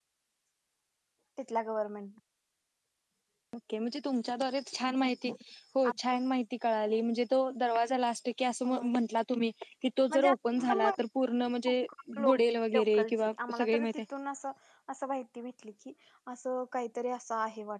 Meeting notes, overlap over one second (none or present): present